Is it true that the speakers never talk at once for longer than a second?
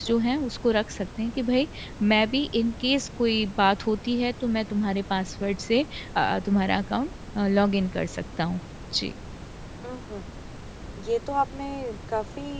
Yes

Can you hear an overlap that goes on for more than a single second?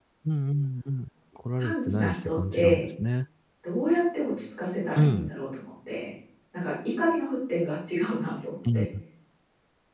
Yes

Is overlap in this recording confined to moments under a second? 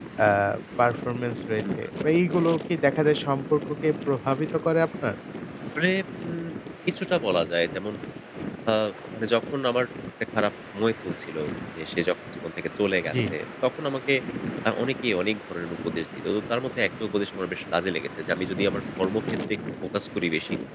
Yes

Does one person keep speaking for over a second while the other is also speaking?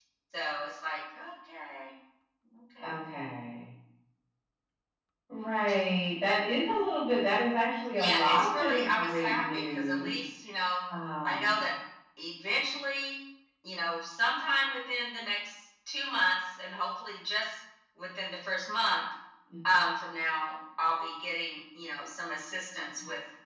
Yes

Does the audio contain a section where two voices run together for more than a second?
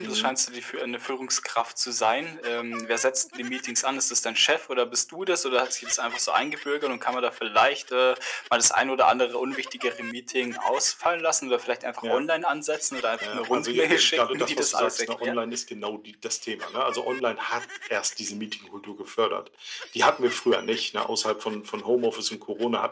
Yes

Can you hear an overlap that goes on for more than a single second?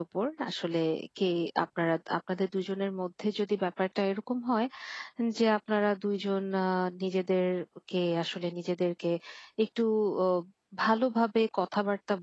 No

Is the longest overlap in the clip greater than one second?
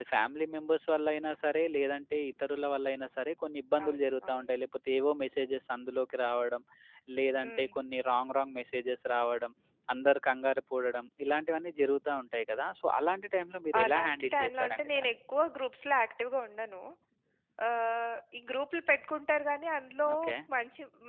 Yes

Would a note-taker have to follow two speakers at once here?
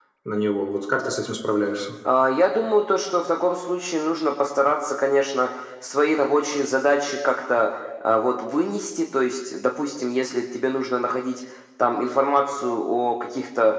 No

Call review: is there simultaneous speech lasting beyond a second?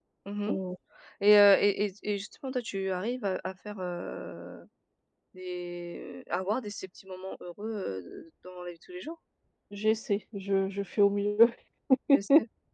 No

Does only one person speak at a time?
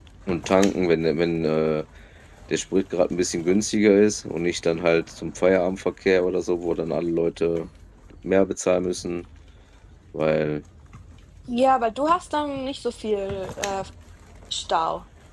Yes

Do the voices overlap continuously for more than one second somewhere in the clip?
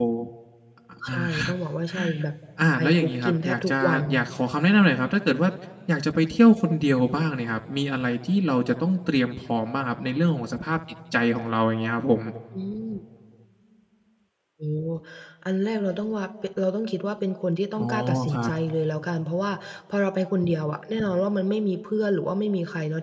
Yes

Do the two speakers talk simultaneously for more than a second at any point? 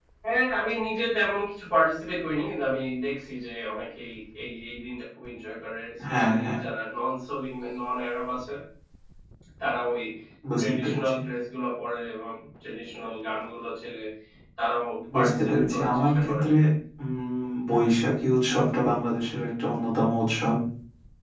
Yes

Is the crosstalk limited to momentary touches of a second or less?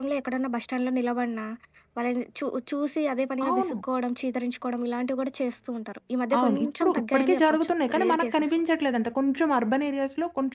No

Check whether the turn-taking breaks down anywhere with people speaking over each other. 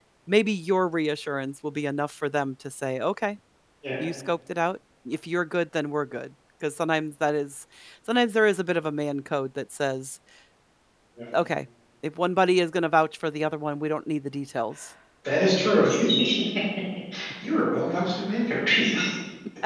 No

